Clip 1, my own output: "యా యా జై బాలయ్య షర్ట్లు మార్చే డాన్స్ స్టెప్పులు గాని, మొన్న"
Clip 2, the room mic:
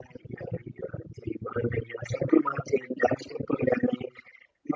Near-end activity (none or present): none